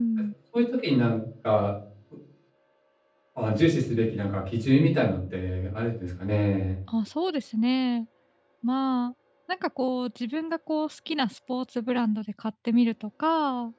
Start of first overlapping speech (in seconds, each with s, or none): none